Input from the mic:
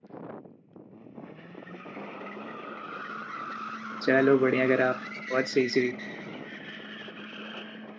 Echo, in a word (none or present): none